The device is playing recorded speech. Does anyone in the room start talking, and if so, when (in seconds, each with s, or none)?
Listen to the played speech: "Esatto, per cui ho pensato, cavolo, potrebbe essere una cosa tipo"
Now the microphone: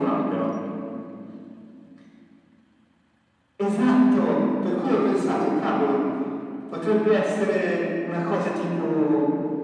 none